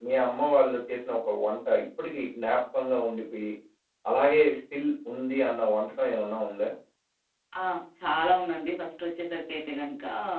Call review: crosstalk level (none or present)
none